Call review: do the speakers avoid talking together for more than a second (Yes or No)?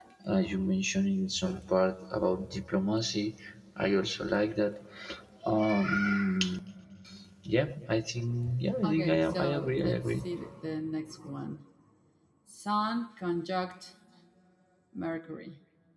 No